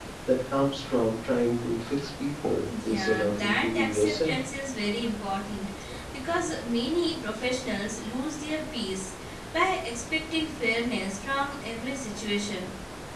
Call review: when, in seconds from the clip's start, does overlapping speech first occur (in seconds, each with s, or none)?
2.4 s